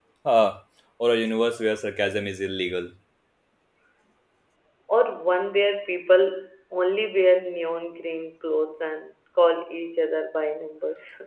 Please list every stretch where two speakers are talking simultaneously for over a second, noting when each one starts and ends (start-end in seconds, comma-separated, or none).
none